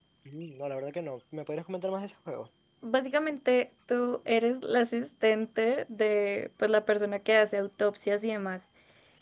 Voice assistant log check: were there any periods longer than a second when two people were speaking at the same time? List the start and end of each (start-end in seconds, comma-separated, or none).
none